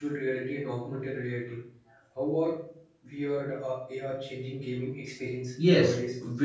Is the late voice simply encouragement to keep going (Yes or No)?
No